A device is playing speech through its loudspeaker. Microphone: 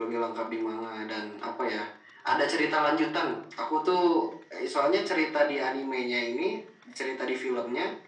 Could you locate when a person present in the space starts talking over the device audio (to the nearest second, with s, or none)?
none